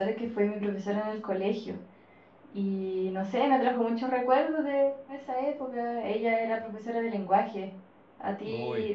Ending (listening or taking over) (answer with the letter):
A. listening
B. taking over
A